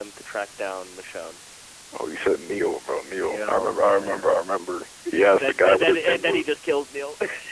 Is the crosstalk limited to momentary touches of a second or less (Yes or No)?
No